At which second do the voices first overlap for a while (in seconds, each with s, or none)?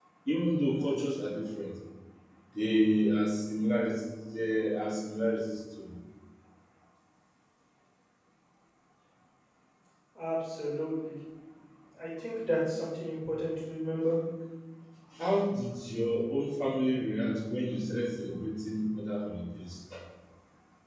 none